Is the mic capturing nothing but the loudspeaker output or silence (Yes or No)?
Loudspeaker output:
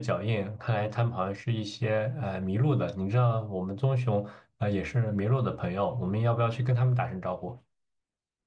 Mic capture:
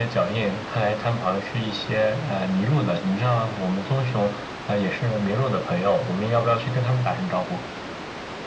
Yes